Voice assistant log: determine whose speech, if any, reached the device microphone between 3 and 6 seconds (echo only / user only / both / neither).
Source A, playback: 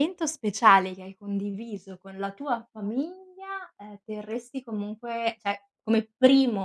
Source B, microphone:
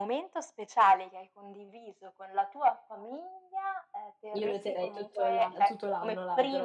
both